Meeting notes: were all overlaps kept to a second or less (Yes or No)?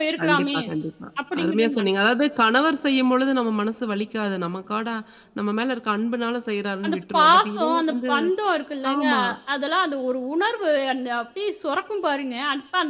No